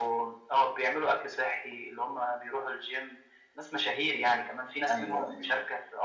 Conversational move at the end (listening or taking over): listening